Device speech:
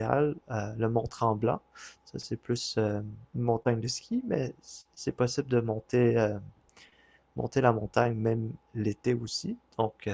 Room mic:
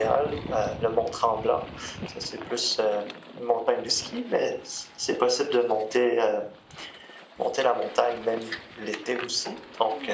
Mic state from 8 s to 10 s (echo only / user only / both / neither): echo only